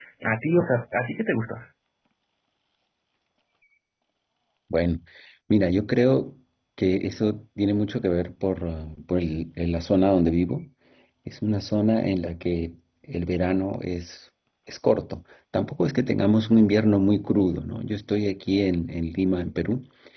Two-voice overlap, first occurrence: none

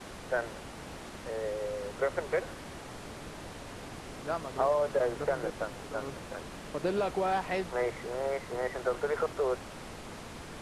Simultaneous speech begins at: 5 s

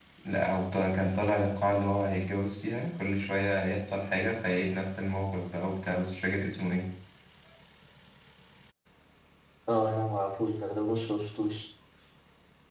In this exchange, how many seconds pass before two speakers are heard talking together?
none

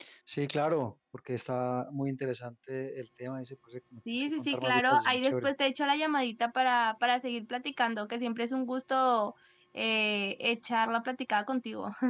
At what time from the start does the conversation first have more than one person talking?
4 s

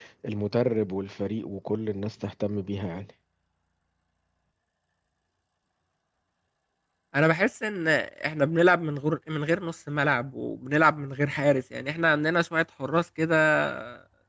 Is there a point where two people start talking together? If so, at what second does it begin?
none

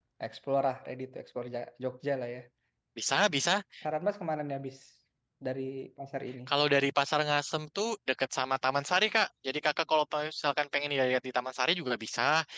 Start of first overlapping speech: none

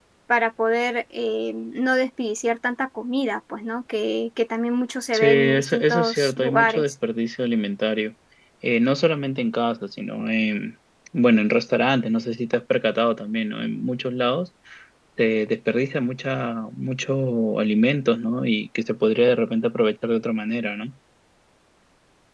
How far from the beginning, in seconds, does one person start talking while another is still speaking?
5 s

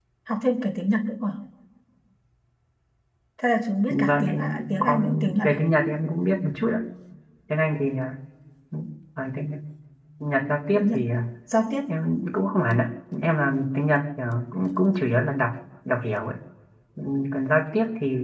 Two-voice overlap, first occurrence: 4 s

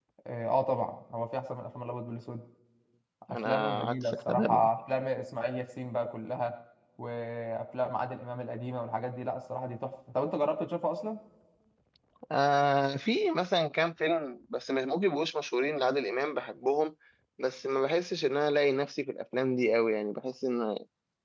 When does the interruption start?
3 s

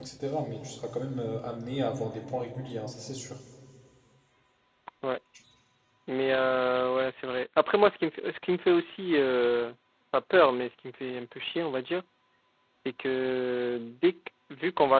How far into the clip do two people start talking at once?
none

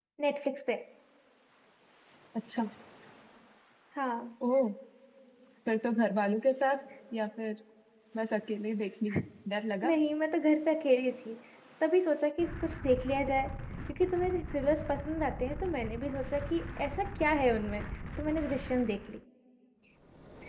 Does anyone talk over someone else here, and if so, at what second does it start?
none

